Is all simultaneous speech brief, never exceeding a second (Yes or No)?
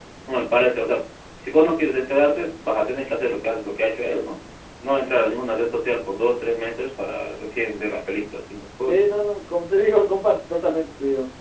Yes